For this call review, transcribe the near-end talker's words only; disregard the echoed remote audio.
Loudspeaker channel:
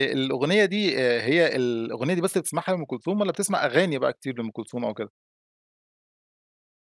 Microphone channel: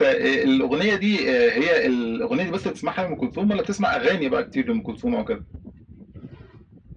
none

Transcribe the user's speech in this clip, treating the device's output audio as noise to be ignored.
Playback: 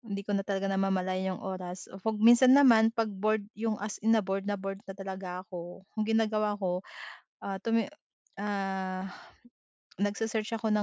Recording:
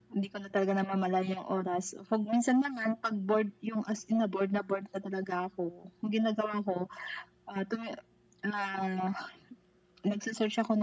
none

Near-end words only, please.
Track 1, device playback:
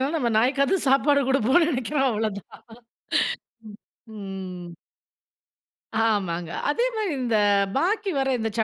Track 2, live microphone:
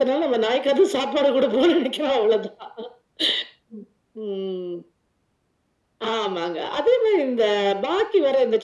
none

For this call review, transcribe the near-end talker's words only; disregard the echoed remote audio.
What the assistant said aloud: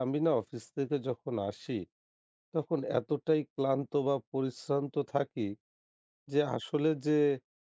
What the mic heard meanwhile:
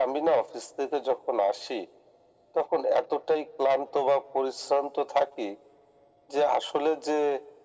none

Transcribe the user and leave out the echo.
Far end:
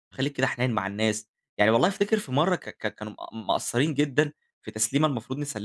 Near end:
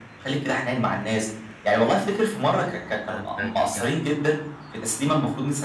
ده أنت ج ج

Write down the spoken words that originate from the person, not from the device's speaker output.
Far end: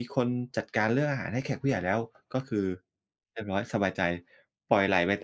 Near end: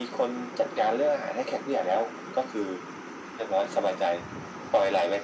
none

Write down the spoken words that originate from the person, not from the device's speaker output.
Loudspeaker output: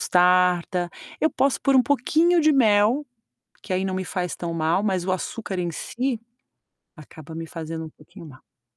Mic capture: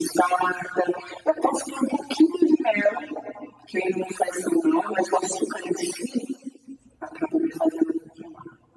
none

